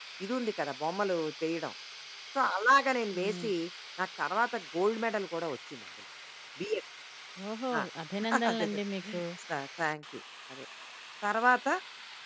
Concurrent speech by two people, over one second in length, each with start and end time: none

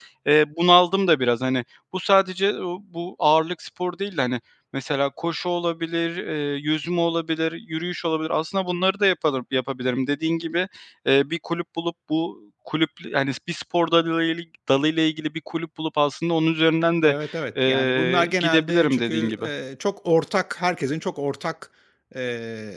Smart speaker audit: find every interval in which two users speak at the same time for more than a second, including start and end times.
17.7-19.4

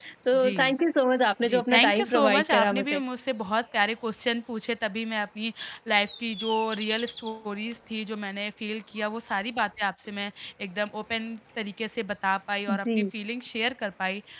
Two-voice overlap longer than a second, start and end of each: 1.5-3.0

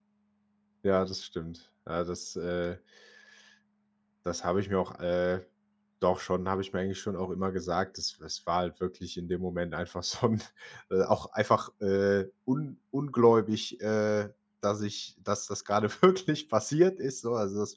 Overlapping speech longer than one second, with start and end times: none

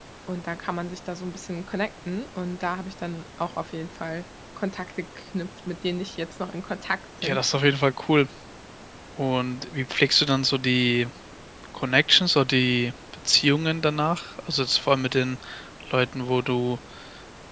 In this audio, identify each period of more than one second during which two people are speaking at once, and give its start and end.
none

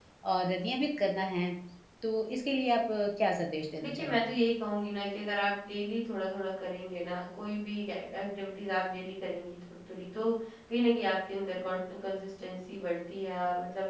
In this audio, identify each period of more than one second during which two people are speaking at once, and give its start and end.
none

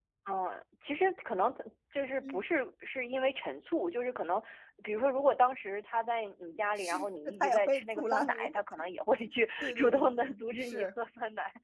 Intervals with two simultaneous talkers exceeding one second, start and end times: 6.8-8.5, 9.6-10.9

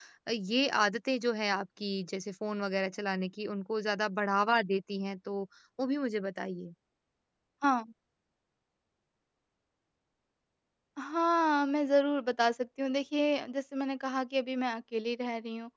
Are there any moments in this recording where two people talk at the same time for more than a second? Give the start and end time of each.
none

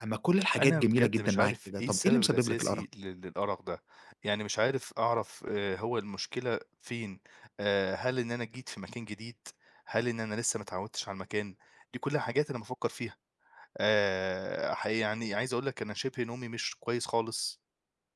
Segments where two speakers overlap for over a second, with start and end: 0.6-2.8

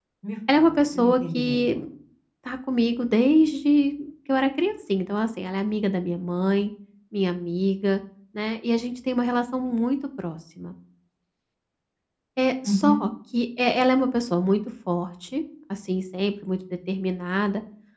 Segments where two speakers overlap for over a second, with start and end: 0.5-1.8

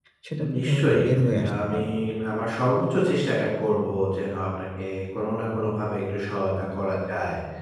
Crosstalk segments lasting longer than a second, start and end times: 0.6-1.8

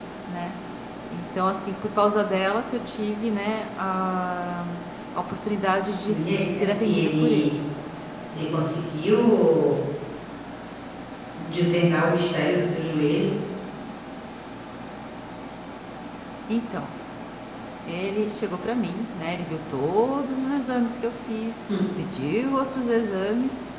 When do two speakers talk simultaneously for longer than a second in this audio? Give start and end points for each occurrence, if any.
5.9-7.5

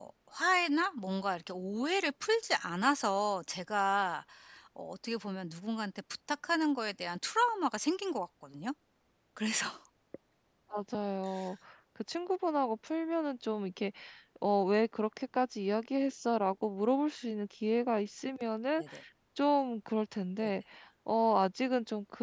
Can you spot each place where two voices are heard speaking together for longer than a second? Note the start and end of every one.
none

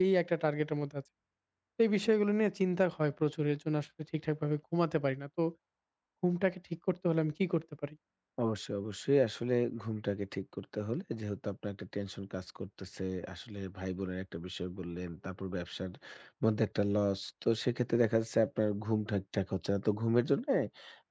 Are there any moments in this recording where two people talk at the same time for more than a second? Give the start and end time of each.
none

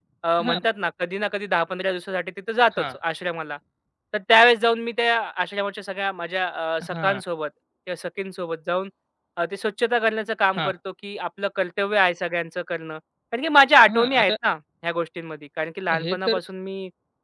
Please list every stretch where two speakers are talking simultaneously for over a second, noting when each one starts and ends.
none

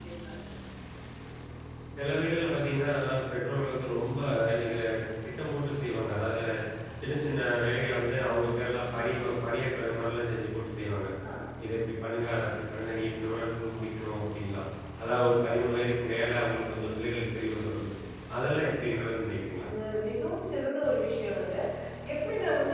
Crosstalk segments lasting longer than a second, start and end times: none

